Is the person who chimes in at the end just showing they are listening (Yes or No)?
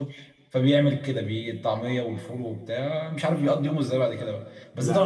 Yes